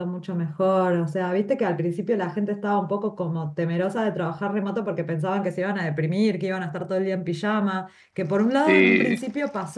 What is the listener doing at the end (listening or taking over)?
listening